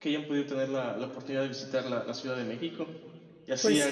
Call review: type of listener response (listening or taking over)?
listening